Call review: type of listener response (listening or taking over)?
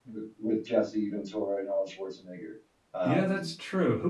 taking over